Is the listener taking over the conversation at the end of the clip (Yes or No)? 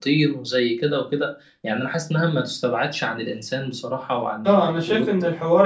Yes